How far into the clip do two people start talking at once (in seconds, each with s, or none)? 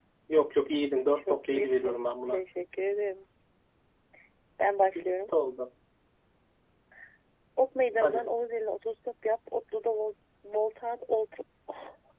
1.1 s